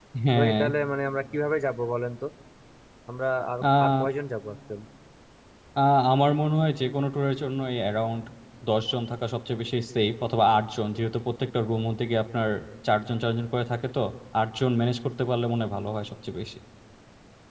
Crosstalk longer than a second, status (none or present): none